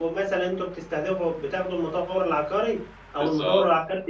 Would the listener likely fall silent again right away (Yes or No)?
Yes